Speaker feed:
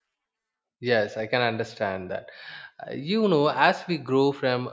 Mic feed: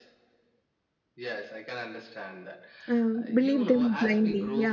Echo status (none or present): present